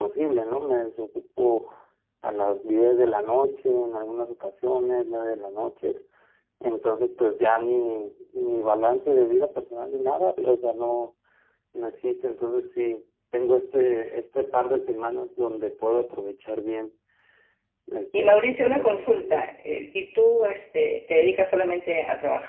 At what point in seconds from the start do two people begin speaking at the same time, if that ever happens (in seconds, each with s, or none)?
18.2 s